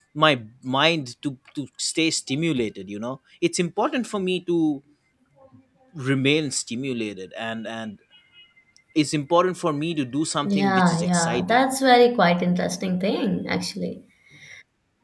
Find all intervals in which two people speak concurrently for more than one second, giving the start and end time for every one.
10.4-11.6

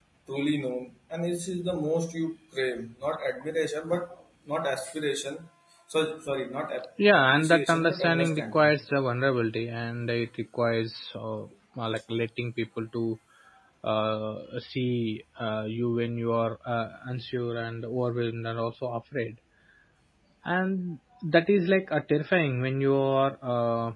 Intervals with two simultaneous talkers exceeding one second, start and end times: 7.1-8.7

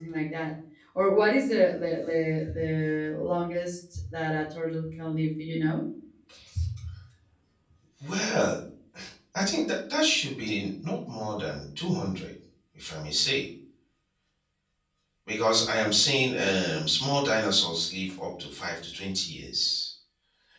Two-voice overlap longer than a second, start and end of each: none

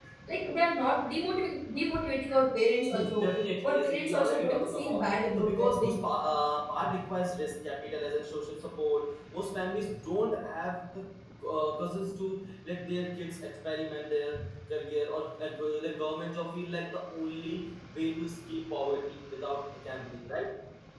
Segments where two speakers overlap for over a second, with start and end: 3.6-6.0

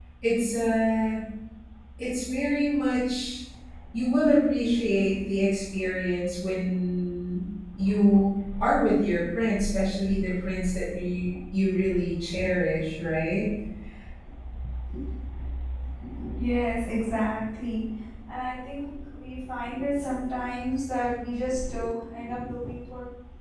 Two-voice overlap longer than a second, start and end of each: none

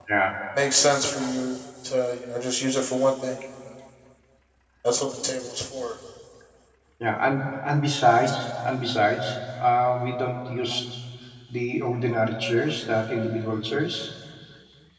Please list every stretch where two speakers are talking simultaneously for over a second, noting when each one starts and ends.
none

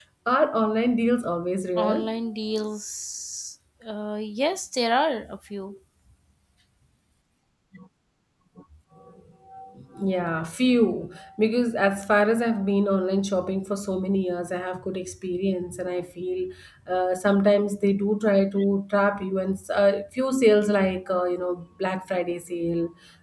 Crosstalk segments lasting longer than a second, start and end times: none

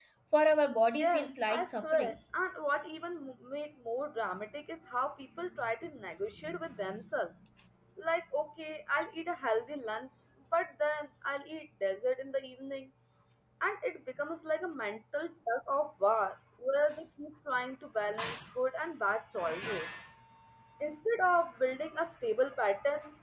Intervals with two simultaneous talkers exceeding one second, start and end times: 0.9-2.2

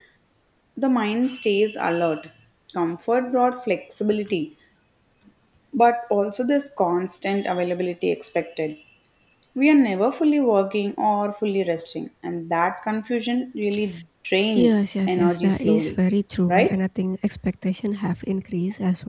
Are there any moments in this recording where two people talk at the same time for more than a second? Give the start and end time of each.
14.6-15.9

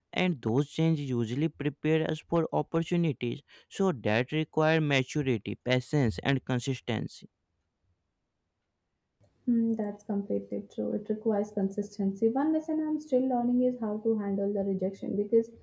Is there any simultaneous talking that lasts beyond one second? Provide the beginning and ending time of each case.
none

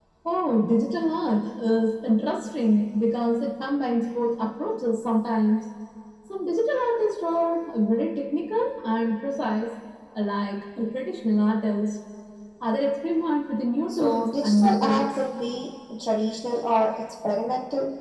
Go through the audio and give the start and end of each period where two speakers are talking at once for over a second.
13.9-15.2

